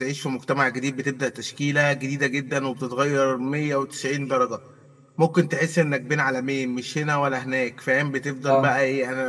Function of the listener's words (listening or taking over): listening